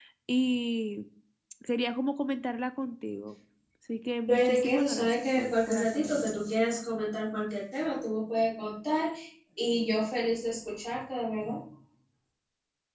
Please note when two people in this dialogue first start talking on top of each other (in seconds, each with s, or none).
4.3 s